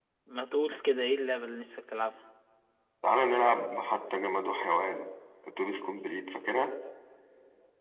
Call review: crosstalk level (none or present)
none